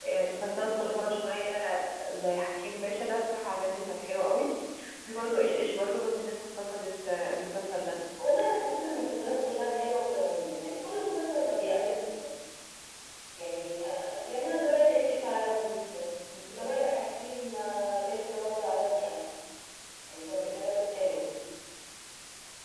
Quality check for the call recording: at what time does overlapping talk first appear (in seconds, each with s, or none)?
none